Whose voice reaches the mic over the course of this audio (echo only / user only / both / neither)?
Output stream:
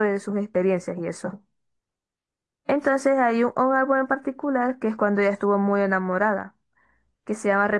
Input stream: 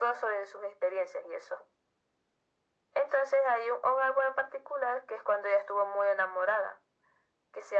echo only